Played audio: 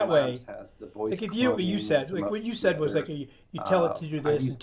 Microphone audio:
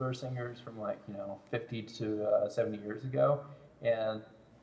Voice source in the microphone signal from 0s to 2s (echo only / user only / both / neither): user only